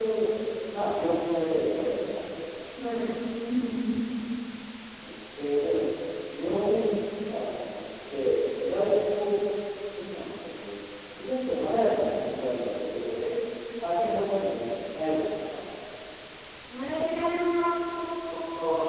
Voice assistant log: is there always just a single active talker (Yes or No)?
Yes